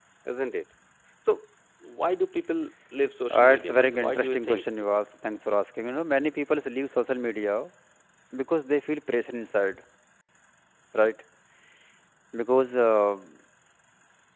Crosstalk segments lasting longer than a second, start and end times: 3.3-4.6

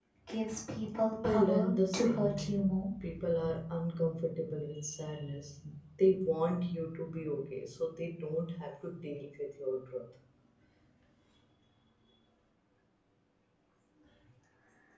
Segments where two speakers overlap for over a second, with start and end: 1.2-2.9

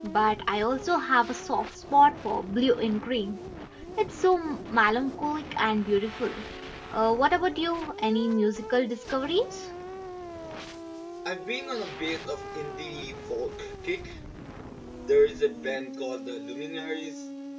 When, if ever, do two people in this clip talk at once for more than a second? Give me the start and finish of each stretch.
none

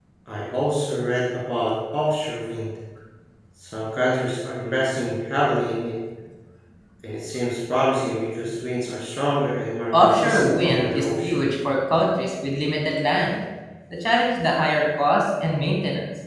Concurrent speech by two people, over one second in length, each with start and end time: 10.0-11.5

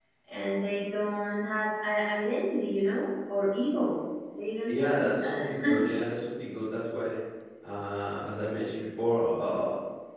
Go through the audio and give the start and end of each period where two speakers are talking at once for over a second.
4.7-6.0

